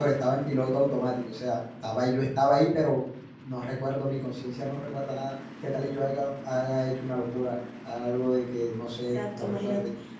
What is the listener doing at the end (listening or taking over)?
taking over